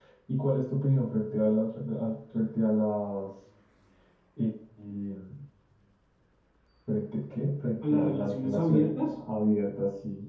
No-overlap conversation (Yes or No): No